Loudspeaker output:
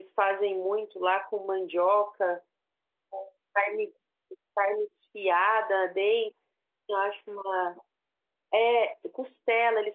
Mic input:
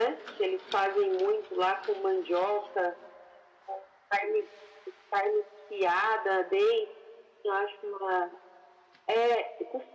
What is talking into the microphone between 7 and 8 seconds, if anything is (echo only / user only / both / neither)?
echo only